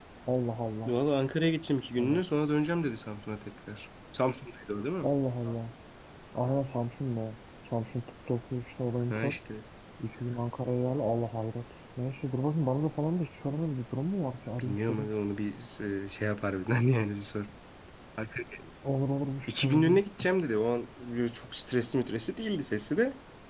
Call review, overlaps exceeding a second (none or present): none